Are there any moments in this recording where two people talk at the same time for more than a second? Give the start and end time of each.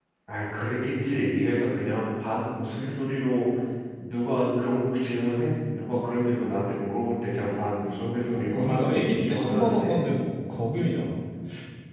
8.2-10.0

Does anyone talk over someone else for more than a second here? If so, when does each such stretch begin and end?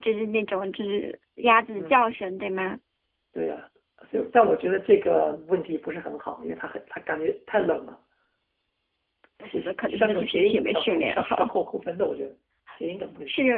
9.6-11.3

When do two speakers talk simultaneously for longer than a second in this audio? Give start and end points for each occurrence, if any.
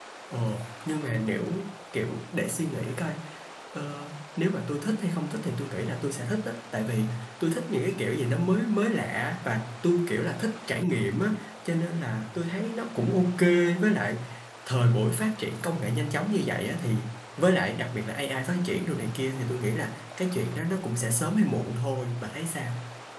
none

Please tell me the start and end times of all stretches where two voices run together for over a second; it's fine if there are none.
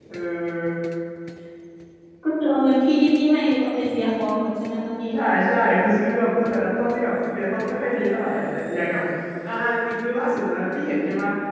none

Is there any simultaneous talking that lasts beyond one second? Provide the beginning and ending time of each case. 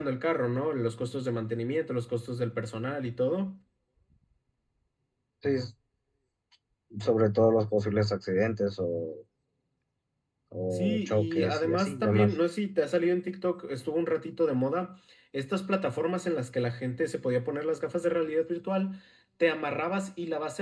10.7-12.3

